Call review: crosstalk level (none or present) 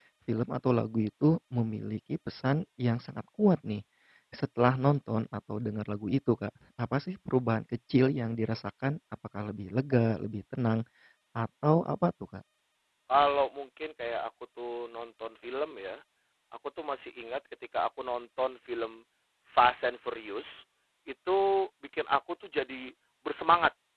none